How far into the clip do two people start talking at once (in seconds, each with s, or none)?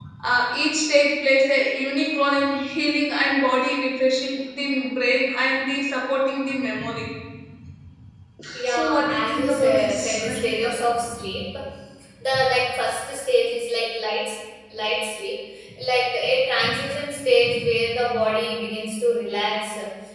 8.7 s